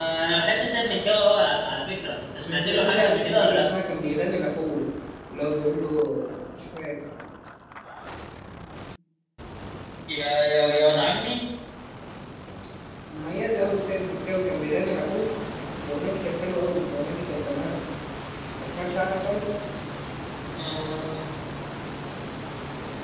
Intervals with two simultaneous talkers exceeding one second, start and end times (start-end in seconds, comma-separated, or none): 2.4-3.7